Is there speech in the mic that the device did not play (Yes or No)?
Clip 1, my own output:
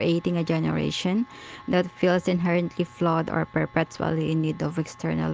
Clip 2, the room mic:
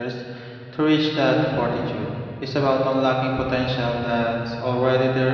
Yes